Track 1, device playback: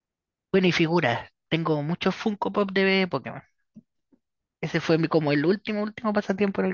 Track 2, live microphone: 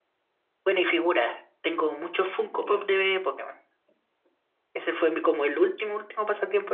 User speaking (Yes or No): Yes